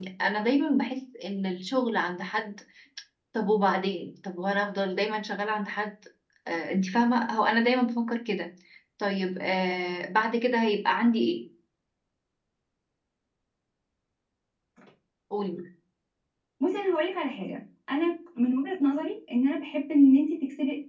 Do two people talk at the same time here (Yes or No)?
No